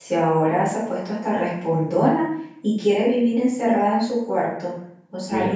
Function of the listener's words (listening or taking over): listening